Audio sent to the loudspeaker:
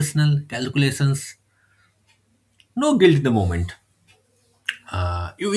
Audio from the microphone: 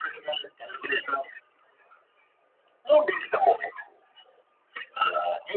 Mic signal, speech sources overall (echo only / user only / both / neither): echo only